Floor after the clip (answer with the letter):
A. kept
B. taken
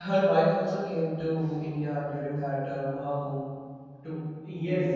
B